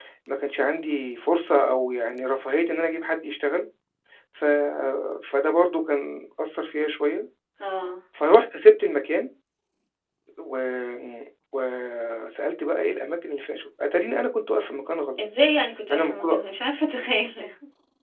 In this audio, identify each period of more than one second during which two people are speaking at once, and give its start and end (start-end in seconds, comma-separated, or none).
none